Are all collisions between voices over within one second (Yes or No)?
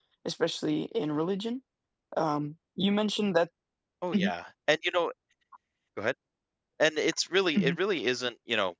Yes